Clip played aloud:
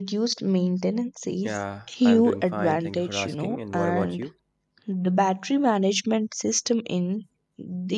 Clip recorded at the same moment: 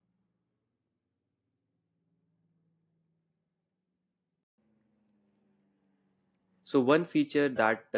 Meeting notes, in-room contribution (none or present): present